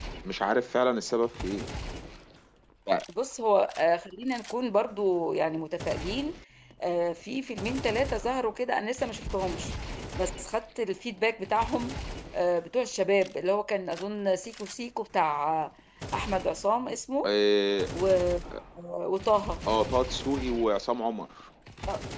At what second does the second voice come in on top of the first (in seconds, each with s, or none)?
none